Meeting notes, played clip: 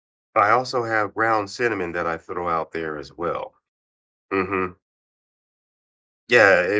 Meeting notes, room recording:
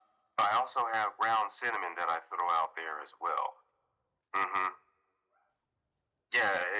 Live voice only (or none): none